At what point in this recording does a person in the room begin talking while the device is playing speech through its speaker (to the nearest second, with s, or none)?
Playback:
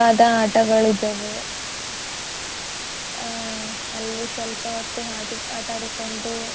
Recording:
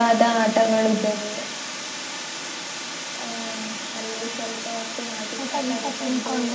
5 s